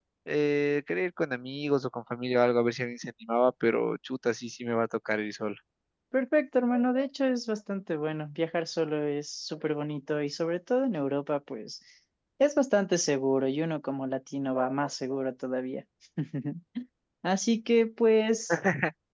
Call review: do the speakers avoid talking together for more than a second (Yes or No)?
Yes